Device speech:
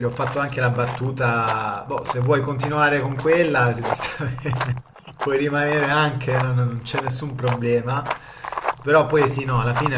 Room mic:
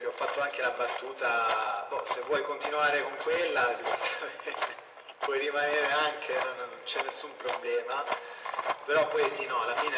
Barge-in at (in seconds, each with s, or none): none